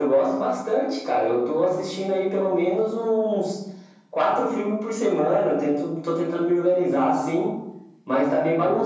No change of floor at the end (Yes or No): Yes